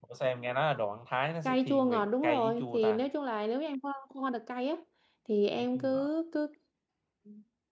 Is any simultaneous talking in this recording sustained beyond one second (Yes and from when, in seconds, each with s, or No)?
Yes, from 1.4 s